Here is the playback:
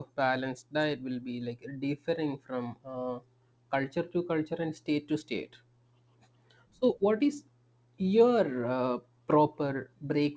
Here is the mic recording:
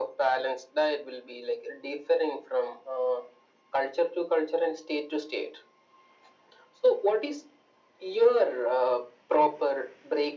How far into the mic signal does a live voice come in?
none

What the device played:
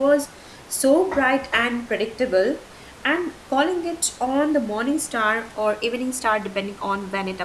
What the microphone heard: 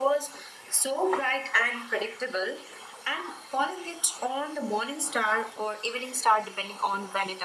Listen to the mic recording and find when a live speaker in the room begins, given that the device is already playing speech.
none

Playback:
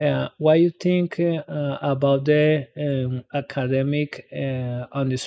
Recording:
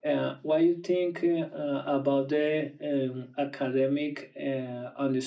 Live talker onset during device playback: none

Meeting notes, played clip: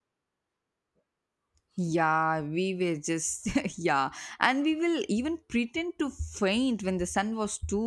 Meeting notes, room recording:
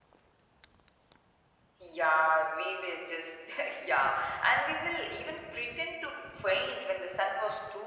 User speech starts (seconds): none

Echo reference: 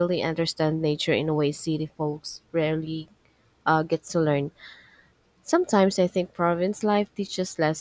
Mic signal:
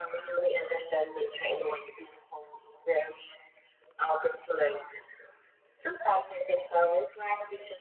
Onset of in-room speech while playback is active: none

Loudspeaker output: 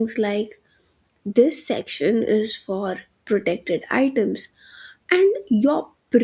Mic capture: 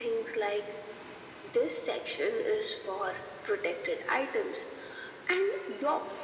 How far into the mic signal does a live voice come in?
none

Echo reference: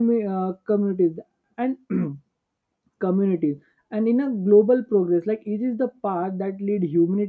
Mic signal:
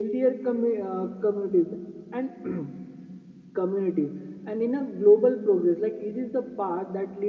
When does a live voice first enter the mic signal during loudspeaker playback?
none

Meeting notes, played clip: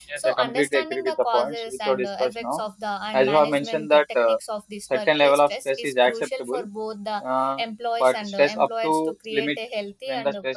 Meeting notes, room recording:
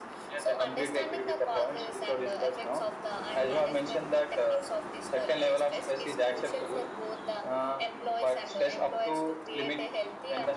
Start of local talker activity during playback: none

